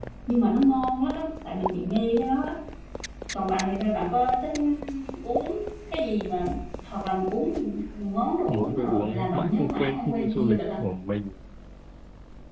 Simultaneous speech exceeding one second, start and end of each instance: 8.5-10.6

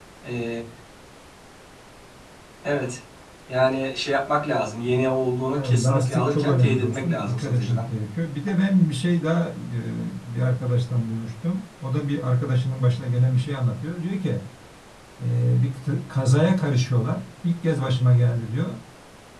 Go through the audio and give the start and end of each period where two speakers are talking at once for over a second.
5.6-7.9

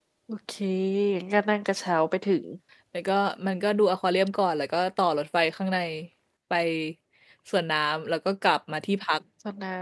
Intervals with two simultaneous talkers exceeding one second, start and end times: none

